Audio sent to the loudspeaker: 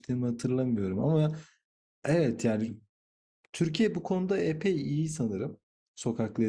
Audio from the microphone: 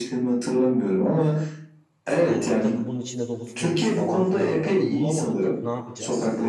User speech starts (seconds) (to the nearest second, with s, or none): 2 s